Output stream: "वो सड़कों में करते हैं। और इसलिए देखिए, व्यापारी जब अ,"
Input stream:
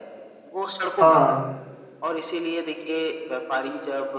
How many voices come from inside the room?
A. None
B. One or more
B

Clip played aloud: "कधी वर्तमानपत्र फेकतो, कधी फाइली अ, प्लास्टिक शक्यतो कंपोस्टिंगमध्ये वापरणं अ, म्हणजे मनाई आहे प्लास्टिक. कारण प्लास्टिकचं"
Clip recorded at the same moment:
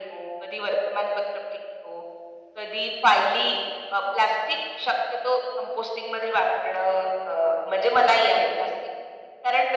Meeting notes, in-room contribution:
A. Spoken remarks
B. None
B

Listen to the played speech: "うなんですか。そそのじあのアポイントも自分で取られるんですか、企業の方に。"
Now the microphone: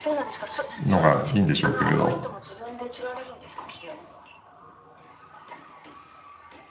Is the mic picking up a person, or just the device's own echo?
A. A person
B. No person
A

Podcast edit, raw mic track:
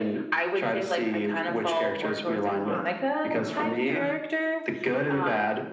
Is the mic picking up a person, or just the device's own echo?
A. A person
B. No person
A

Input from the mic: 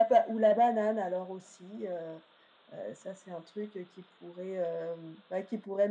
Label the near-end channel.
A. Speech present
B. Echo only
B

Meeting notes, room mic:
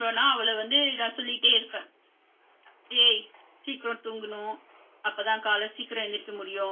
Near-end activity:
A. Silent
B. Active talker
A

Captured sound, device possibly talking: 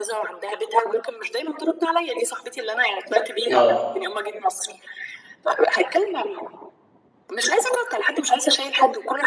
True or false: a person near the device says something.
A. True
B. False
A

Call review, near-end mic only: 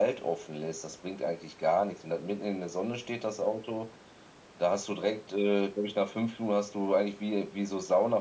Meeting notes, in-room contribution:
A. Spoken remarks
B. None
B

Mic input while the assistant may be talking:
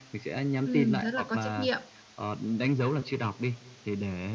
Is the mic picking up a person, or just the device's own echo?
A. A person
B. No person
A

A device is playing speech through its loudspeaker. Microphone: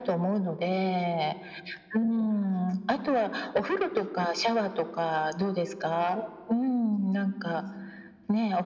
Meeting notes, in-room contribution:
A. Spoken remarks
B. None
B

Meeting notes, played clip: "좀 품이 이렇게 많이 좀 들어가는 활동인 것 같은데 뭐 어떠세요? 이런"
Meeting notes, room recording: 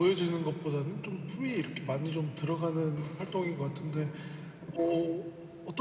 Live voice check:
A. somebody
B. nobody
B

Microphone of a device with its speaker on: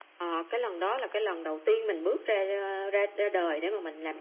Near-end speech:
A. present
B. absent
B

